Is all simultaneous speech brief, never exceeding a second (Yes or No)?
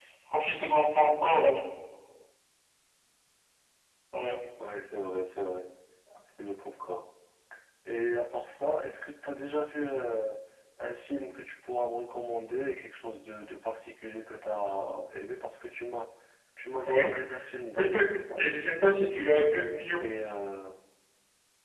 Yes